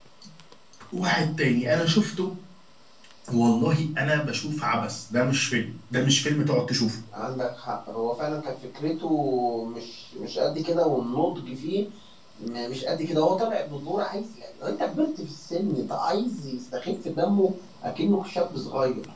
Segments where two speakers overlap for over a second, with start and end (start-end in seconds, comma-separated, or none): none